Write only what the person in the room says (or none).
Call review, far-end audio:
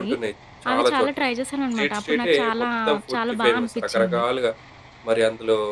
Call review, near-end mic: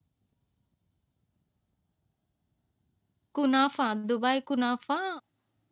కునాఫా, దుబాయ్ కునాఫా